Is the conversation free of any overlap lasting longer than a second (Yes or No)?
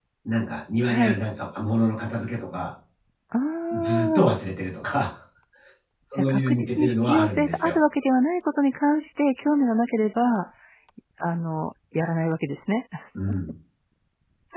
No